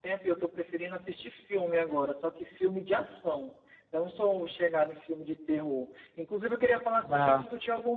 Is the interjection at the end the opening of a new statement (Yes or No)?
No